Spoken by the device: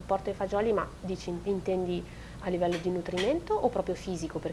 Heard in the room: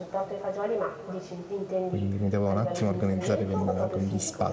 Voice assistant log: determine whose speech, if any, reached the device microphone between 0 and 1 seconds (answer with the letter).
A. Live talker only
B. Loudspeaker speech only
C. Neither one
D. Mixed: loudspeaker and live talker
B